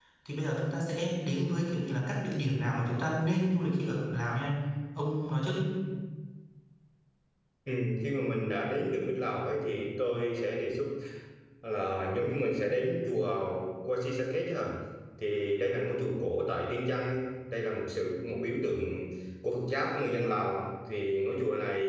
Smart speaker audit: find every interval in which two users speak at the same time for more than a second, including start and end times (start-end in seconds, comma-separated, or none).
none